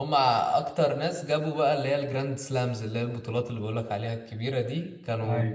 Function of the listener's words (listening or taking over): listening